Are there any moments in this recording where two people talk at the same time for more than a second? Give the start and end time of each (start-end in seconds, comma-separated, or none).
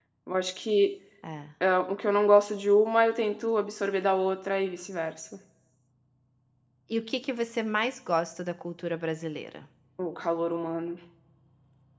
none